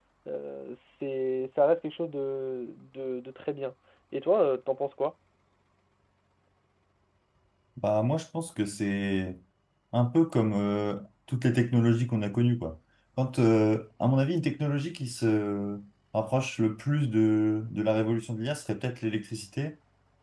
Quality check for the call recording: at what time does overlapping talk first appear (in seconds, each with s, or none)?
none